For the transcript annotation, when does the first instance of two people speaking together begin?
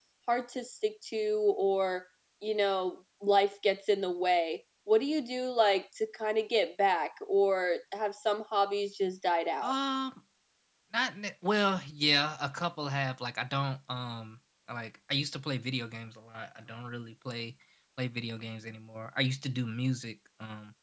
none

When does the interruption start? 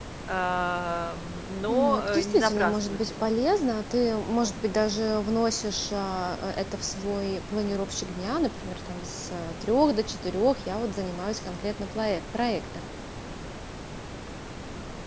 1.7 s

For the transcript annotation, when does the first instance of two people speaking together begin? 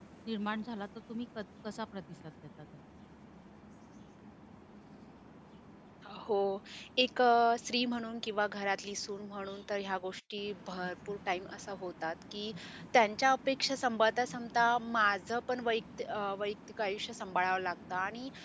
none

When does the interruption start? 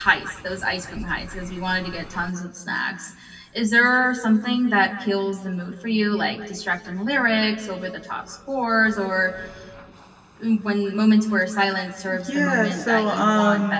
12.1 s

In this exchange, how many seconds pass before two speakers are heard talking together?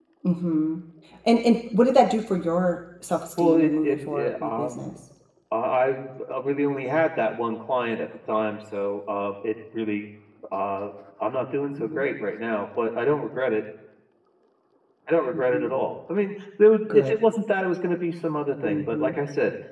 3.4 s

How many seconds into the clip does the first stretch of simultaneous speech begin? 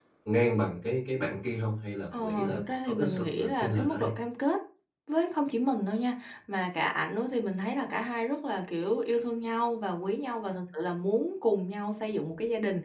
2.1 s

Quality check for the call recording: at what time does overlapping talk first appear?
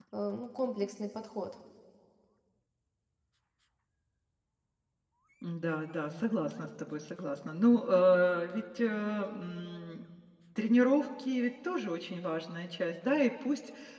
none

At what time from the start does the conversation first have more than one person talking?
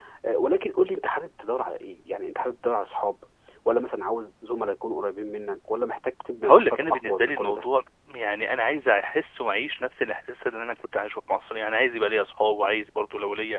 6.4 s

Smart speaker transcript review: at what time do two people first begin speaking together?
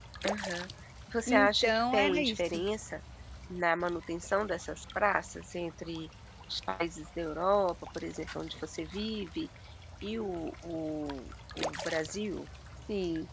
1.3 s

